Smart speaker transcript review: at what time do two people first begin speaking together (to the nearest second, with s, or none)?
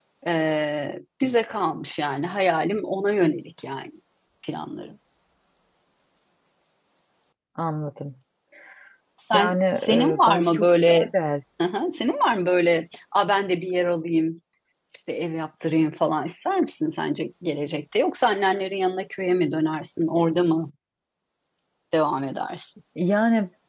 9 s